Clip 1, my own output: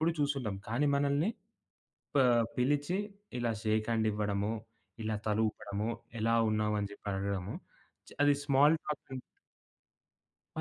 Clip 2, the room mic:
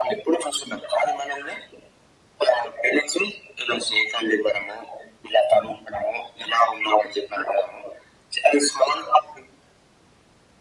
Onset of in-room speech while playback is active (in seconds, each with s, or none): none